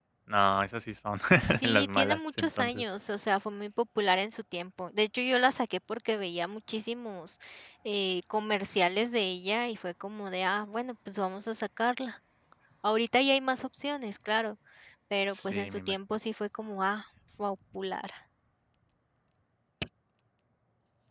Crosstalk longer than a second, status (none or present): present